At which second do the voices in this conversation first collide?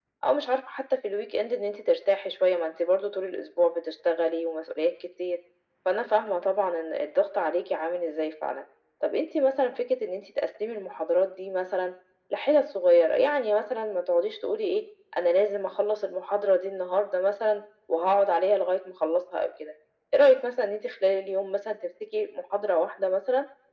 none

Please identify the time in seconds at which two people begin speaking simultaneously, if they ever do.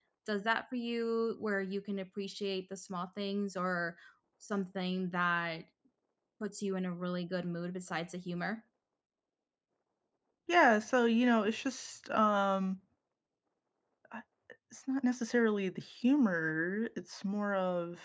none

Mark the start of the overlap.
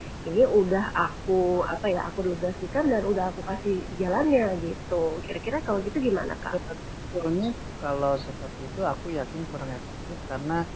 none

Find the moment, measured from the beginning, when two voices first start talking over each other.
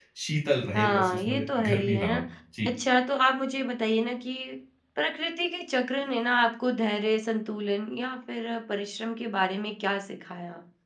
0.7 s

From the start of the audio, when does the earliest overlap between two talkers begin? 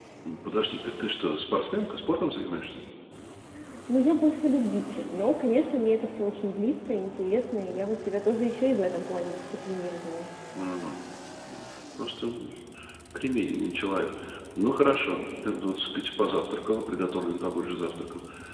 none

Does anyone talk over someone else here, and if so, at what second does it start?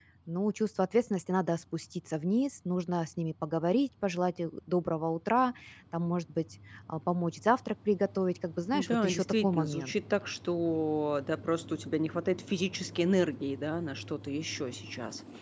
8.7 s

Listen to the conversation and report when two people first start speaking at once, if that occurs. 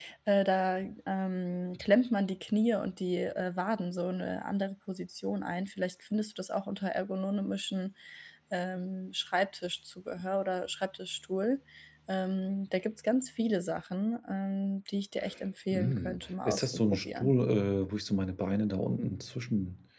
15.7 s

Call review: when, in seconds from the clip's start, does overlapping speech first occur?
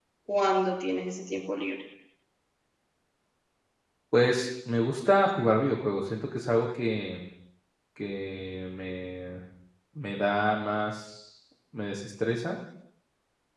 none

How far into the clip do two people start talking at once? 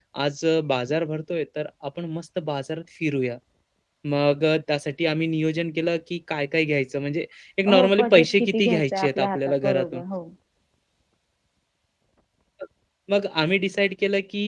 7.7 s

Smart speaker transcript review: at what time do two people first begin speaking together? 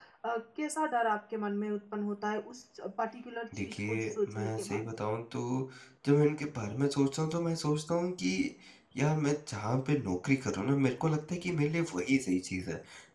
3.5 s

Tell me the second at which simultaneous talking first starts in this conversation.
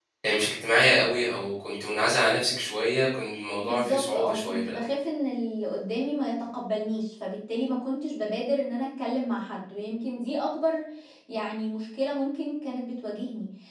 3.6 s

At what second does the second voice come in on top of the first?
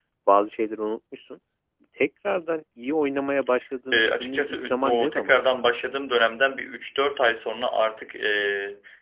3.9 s

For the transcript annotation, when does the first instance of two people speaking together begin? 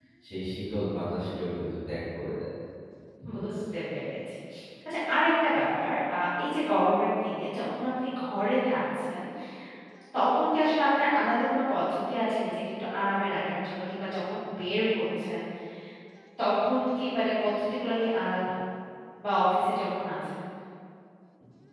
none

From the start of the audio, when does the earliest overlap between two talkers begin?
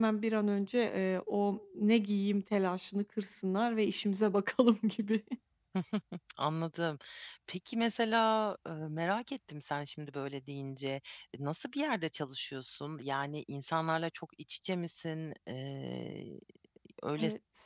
none

